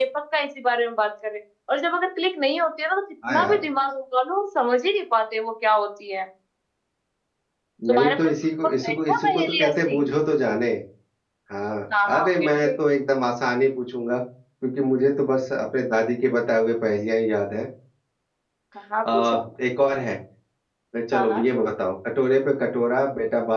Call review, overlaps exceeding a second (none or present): present